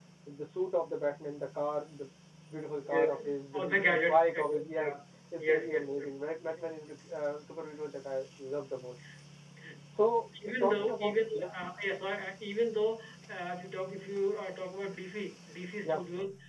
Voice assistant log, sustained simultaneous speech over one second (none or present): present